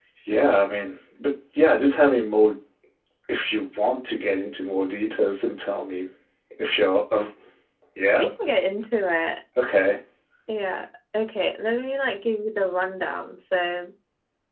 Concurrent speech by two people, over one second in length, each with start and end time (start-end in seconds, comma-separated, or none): none